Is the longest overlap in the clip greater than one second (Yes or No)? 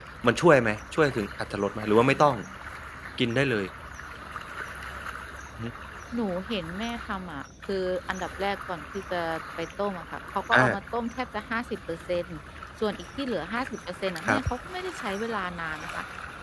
No